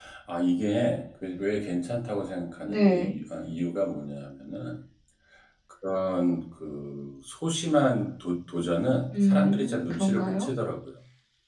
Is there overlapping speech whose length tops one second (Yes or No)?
Yes